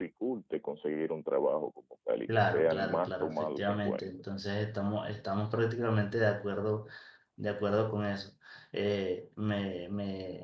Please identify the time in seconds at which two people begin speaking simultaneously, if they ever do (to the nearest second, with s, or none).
2 s